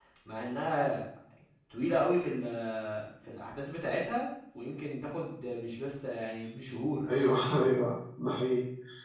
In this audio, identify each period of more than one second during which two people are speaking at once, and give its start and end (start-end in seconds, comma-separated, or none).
none